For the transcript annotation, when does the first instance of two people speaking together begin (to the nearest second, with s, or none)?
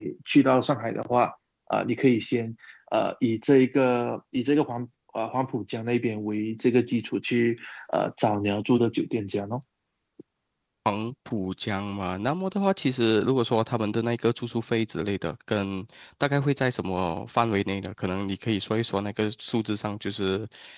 none